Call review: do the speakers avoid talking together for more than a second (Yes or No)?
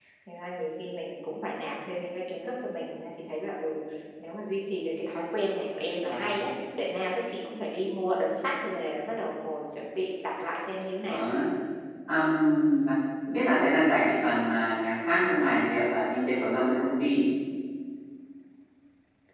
Yes